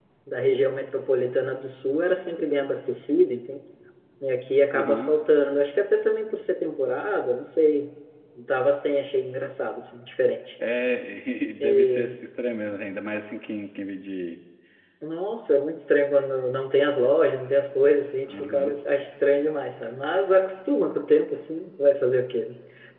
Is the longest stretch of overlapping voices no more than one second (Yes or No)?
Yes